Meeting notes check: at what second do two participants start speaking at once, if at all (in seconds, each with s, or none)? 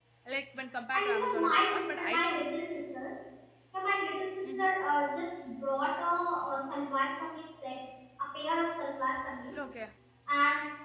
0.9 s